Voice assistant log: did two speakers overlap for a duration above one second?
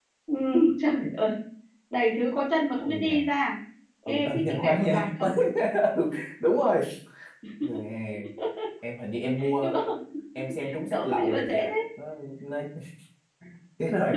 Yes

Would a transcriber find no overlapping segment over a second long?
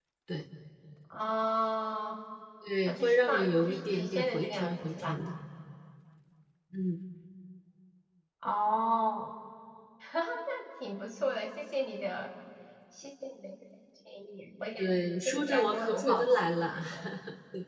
No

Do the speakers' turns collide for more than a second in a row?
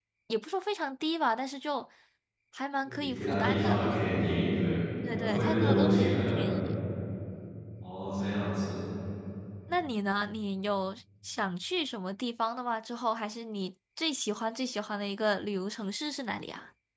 Yes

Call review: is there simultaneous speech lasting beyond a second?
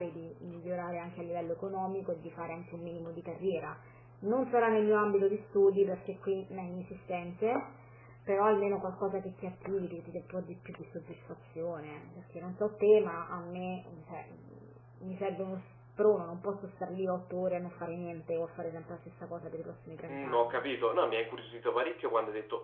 No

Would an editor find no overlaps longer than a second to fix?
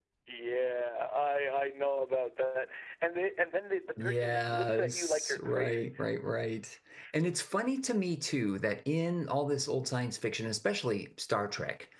No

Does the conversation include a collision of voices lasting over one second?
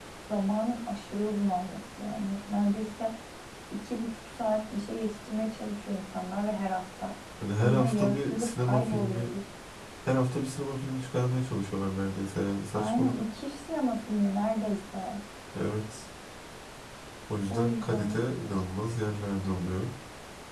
Yes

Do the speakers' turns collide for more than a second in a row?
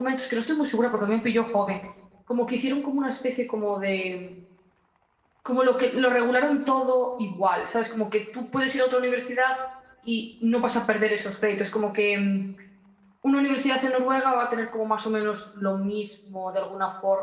No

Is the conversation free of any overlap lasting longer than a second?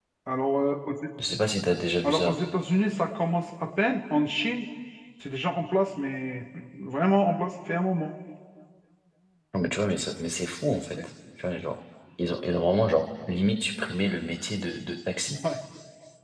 Yes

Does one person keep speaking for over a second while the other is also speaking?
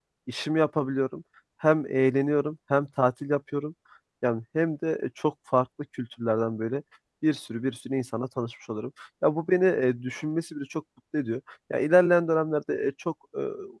No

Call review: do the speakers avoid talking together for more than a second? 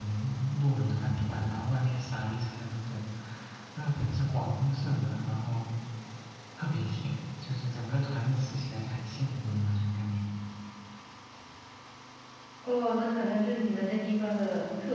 Yes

